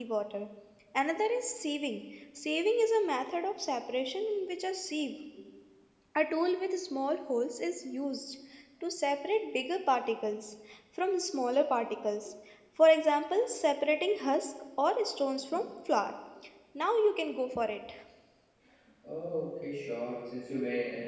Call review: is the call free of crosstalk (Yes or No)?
Yes